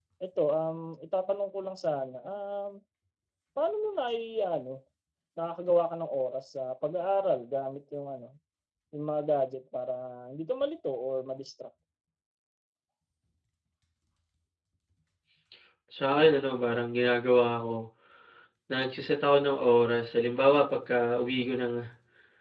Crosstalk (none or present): none